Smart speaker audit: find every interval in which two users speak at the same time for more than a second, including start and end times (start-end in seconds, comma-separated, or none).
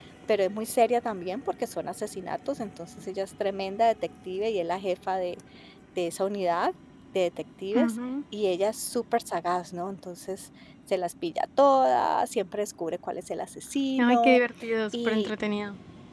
none